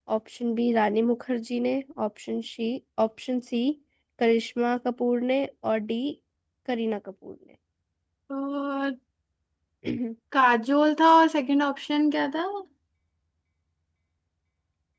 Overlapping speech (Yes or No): No